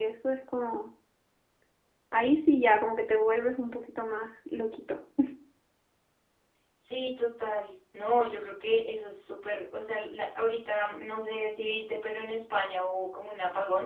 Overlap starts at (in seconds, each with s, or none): none